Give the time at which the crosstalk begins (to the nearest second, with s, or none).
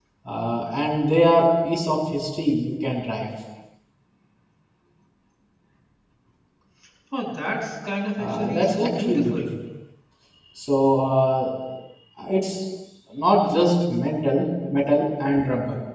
8 s